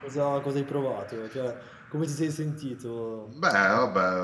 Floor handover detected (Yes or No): Yes